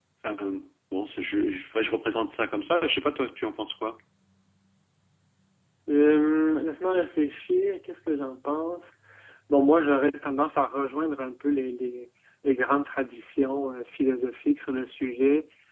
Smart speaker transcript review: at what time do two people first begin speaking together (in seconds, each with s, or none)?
none